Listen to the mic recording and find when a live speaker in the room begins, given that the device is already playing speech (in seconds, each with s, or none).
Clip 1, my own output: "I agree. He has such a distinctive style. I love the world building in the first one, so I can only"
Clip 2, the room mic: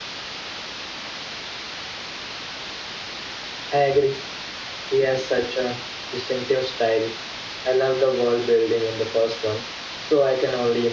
none